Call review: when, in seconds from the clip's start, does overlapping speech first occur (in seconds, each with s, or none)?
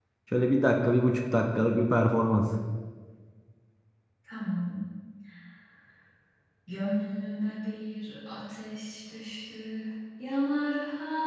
none